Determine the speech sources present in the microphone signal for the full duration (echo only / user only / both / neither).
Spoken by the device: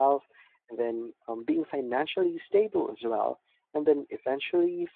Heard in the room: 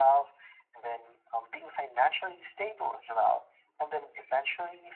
echo only